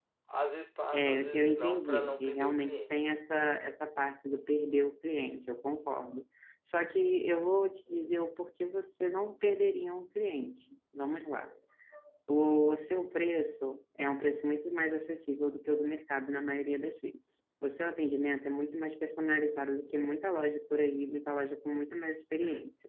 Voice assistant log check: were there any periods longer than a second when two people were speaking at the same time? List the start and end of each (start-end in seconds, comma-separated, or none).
0.9-3.1